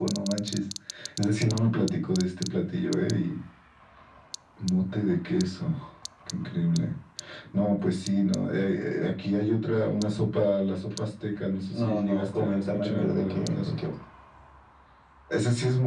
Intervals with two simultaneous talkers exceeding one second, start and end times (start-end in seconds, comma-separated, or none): 11.7-13.8